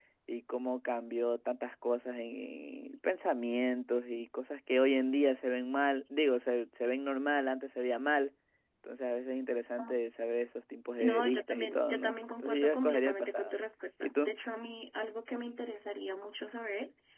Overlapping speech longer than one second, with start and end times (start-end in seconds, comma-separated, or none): 11.0-13.6